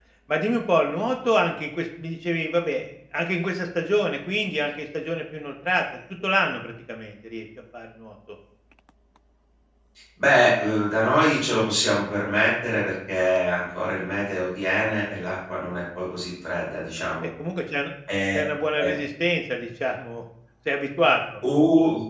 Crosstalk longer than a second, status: none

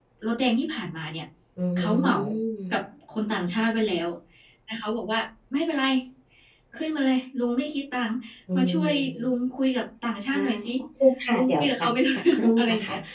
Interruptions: present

